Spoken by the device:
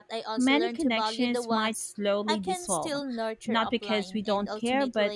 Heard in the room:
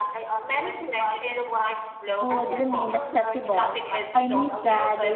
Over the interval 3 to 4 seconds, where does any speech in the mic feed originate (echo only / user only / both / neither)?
both